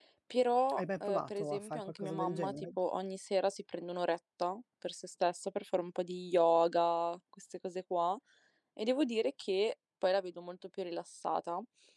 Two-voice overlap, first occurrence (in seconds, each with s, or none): 0.8 s